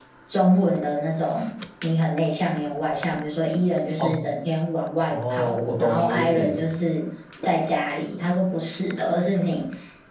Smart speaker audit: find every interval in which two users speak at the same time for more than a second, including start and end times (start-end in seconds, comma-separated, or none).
5.1-6.5